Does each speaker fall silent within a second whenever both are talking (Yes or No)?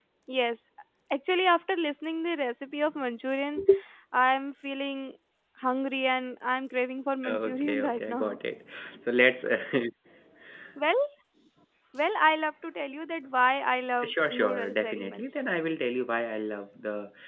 No